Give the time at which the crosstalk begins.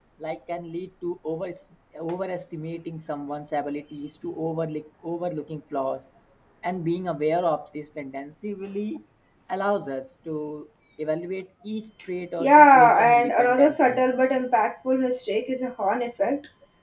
12.4 s

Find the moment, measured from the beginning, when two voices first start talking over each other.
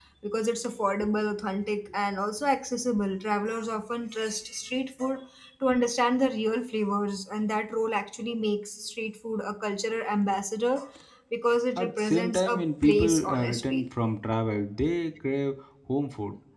11.8 s

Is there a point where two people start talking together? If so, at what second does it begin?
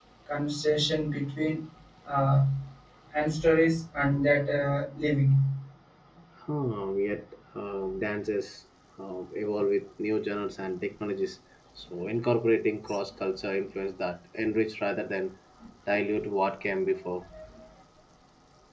none

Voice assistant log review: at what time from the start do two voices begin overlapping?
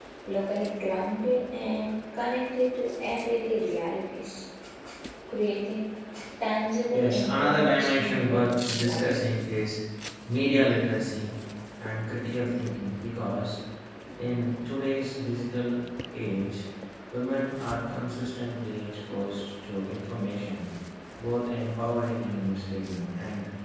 6.9 s

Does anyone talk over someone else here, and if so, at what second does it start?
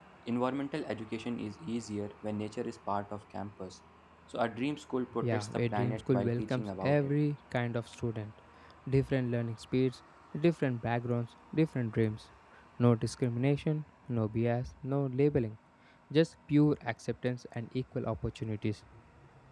5.2 s

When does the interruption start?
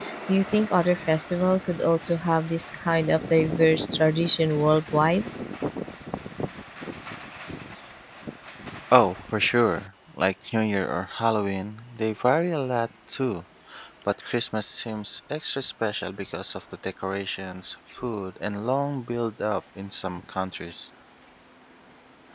none

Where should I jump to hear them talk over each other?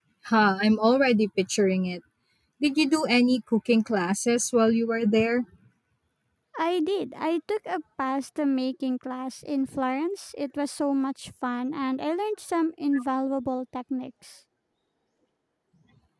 none

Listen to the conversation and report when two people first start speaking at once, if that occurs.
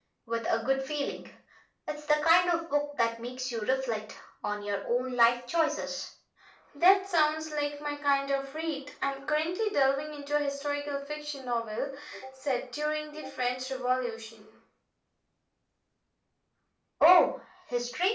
none

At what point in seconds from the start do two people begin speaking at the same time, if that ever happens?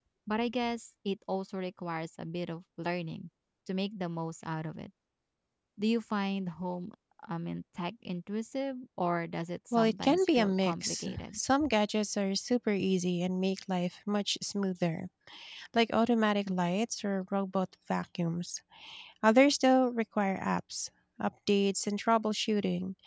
9.7 s

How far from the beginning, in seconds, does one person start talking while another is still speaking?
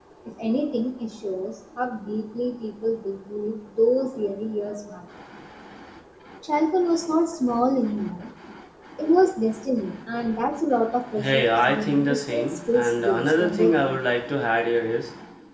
11.2 s

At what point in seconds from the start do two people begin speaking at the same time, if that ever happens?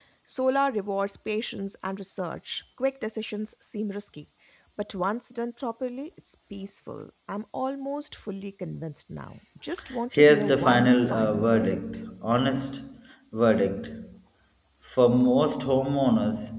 10.1 s

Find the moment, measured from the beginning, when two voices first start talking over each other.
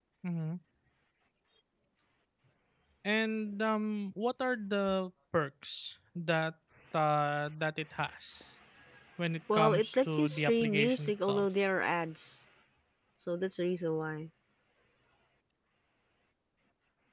9.5 s

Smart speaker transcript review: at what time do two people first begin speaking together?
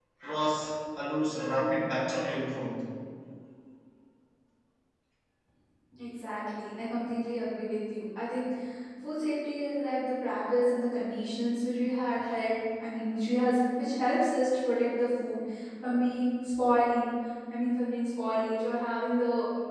none

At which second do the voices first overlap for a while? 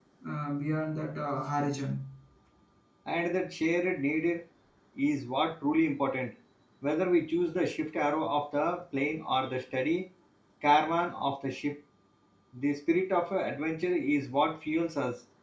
none

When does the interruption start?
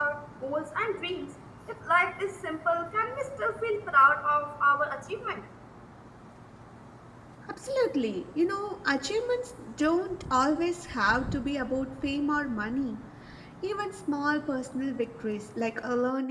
none

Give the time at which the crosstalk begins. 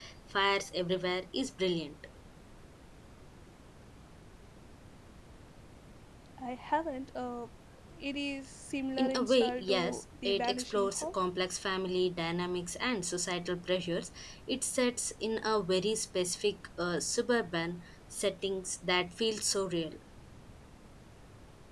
9.0 s

